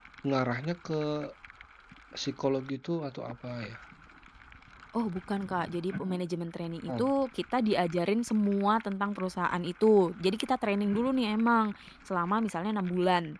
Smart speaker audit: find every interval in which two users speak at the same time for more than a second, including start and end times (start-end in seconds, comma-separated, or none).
none